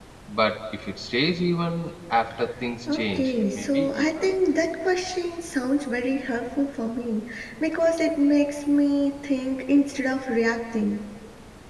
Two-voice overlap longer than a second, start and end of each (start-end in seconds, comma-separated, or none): 2.9-4.3